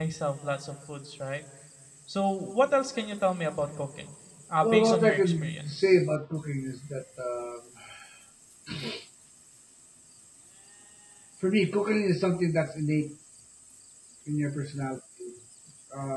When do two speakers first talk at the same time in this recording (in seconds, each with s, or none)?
4.6 s